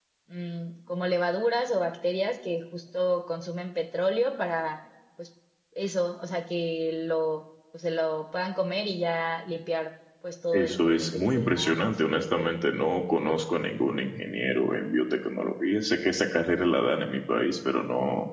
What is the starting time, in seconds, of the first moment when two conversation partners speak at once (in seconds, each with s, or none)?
10.5 s